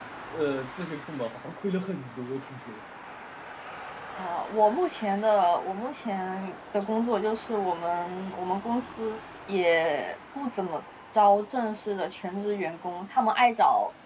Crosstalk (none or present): none